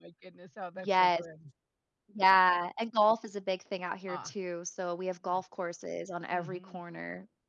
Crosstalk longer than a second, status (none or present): none